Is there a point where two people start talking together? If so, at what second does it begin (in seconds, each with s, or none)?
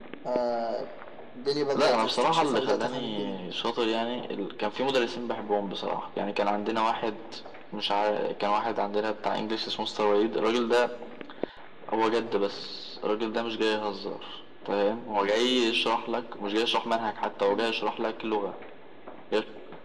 1.8 s